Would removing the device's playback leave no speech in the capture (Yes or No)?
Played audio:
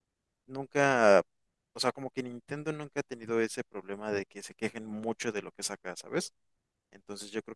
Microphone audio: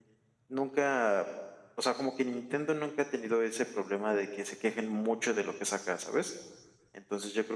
Yes